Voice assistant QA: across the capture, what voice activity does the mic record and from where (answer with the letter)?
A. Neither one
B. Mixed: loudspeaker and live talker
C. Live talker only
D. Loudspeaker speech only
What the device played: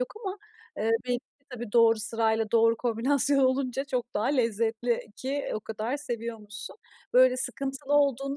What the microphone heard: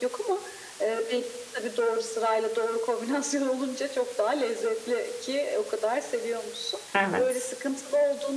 B